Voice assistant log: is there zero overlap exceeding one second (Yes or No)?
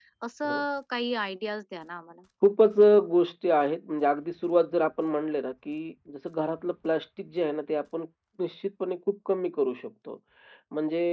Yes